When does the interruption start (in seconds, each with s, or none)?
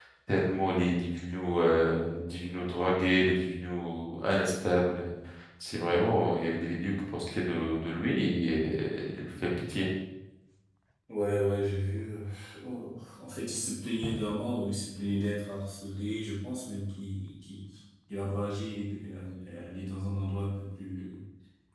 none